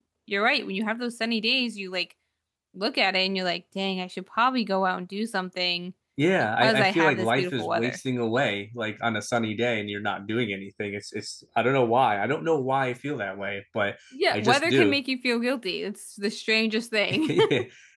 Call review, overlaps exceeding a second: present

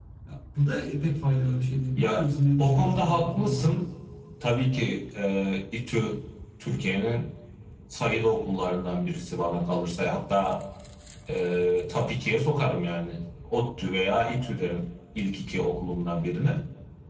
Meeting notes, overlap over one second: present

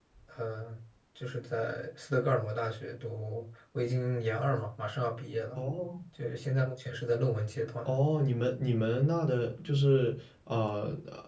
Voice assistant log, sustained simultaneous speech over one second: none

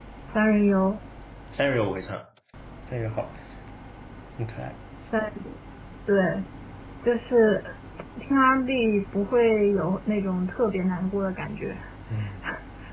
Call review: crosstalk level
none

